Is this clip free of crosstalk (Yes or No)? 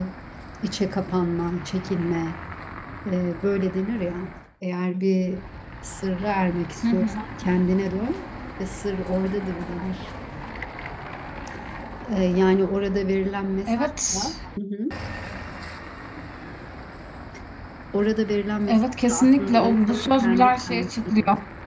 No